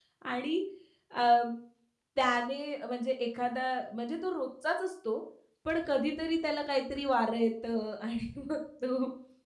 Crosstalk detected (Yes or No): No